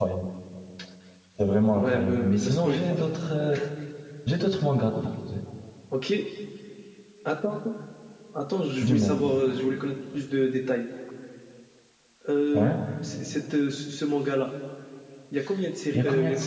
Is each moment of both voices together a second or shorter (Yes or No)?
No